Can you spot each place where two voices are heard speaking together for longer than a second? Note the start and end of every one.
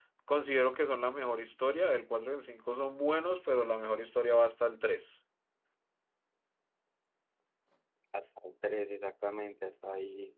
none

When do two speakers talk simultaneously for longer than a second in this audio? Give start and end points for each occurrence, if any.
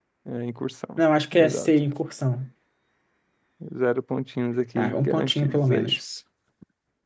4.8-6.0

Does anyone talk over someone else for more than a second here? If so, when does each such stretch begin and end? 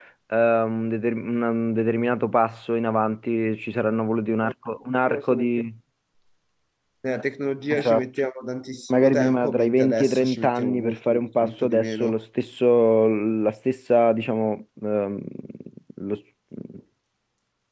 8.9-12.2

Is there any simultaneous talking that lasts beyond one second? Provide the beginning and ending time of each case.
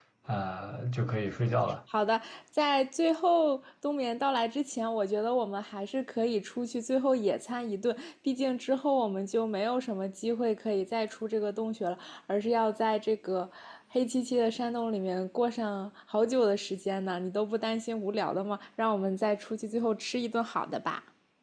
none

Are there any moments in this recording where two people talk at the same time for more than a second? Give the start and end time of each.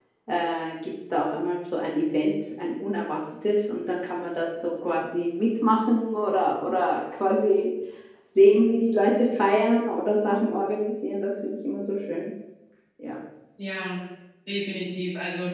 none

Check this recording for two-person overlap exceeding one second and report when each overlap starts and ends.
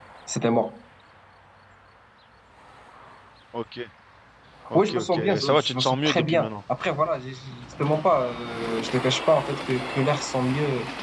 4.7-6.5

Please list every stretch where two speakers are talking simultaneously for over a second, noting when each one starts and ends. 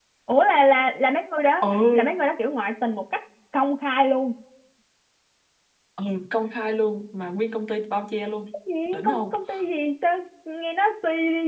none

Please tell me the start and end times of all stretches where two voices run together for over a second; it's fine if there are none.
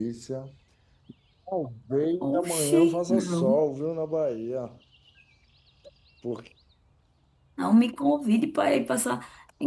2.3-3.6

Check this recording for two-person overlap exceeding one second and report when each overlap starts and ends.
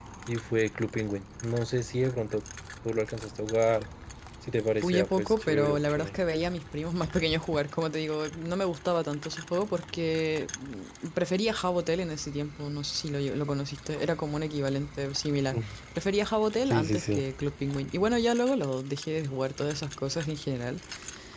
4.8-6.1

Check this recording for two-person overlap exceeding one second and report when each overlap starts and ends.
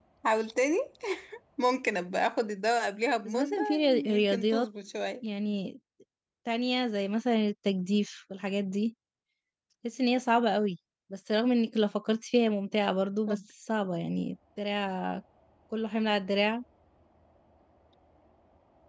3.2-4.7

